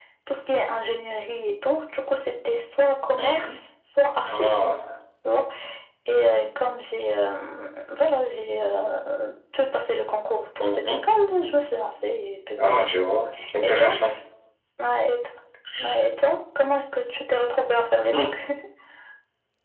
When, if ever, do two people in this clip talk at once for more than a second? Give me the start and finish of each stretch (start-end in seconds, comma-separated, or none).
none